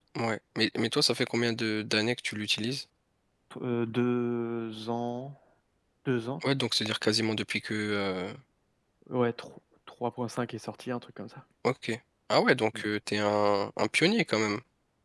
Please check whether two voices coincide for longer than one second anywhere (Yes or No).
No